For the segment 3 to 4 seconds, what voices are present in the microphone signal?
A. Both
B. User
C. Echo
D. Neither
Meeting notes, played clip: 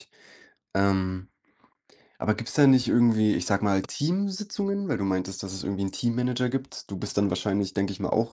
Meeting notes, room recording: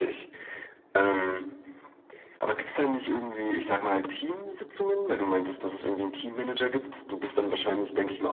C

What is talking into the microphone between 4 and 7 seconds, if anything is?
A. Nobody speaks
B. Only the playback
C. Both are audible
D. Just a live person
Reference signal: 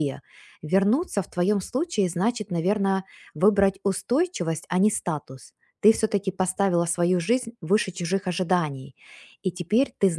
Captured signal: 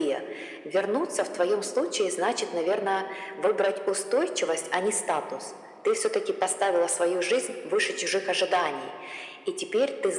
B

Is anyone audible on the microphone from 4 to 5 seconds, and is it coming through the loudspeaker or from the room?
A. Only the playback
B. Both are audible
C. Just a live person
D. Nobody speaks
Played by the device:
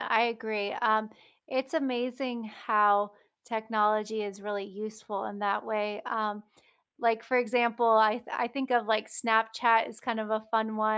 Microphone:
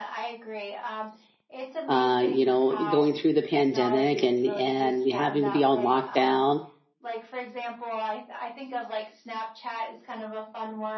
B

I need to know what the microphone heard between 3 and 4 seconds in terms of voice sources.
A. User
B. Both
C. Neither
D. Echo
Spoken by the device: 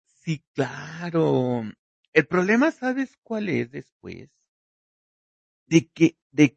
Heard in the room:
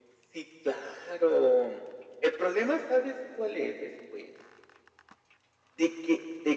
D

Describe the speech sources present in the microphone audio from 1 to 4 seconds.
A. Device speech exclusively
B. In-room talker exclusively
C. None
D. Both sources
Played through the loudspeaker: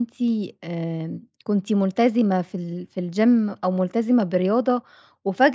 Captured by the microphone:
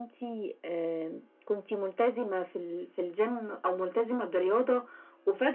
A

